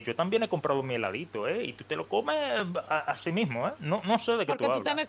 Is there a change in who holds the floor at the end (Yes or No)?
Yes